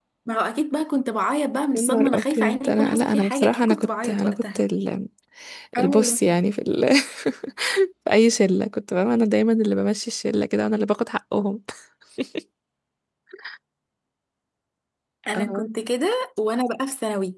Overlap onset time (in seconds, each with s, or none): 1.7 s